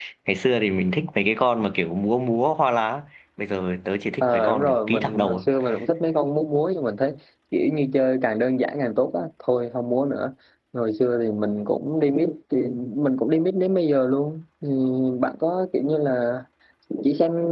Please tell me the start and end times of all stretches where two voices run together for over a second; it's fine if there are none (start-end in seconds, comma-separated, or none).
4.2-5.4